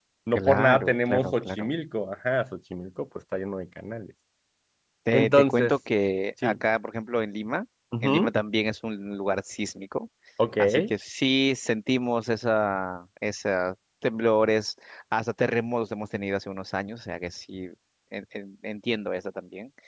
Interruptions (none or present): present